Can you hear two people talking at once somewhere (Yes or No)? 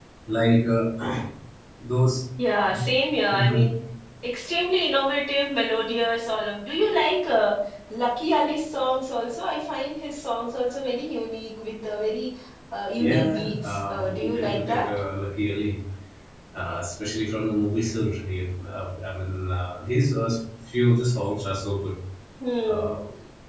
Yes